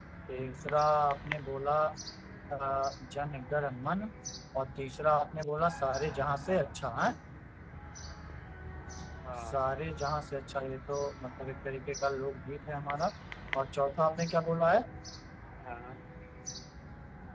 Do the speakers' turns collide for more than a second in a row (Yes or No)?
No